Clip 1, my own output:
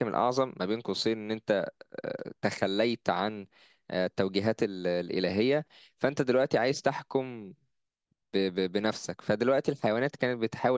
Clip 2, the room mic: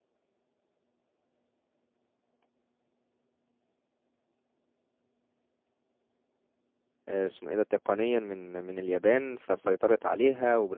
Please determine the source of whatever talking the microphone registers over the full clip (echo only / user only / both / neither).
user only